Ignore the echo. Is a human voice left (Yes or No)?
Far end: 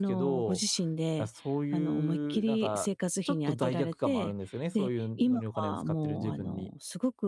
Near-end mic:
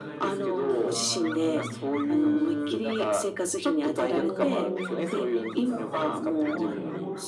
Yes